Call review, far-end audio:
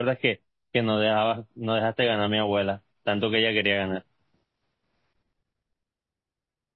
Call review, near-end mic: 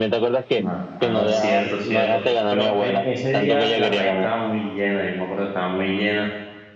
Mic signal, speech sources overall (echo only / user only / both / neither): both